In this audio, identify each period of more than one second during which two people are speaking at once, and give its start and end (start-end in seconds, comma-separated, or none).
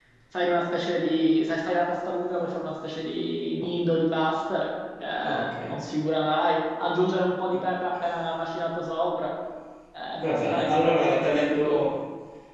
10.3-11.8